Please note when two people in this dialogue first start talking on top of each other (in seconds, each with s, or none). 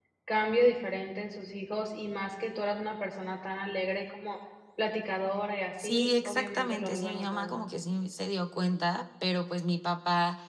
5.8 s